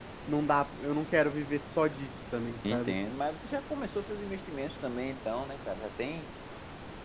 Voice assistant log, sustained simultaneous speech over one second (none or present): none